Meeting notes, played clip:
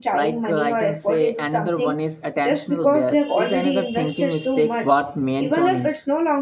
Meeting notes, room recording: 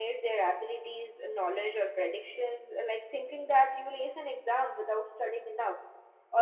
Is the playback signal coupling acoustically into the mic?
No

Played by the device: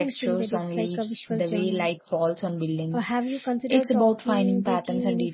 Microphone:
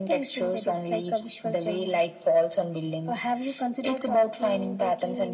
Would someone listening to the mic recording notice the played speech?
Yes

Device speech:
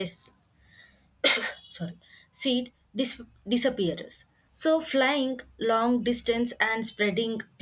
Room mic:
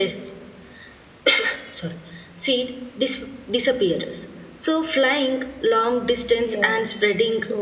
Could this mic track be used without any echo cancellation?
No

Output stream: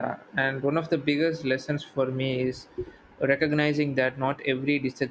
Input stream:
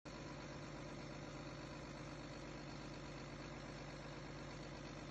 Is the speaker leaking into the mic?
No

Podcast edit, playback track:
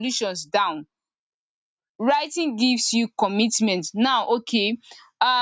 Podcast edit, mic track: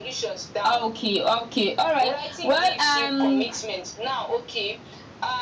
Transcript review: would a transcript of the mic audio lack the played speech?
No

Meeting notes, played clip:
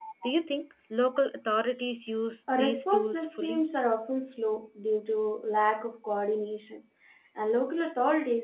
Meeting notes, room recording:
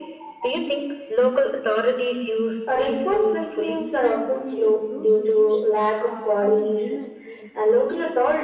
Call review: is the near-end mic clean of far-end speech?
No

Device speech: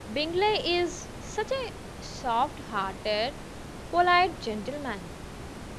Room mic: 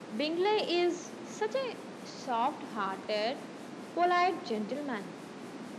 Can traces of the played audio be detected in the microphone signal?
Yes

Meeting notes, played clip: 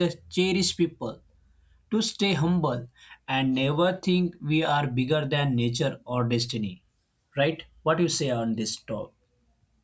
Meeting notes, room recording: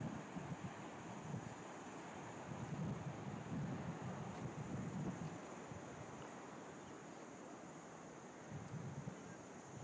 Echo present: No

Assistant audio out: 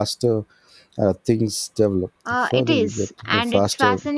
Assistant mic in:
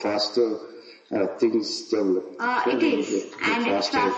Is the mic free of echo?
No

